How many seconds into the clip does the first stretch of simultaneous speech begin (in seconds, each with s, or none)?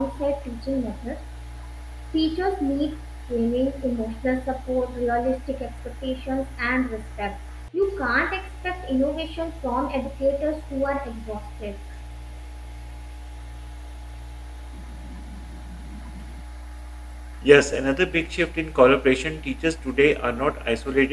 none